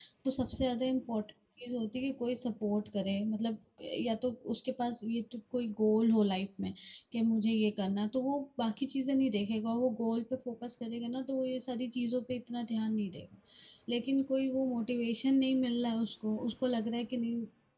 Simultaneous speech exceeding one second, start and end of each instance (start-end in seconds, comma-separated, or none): none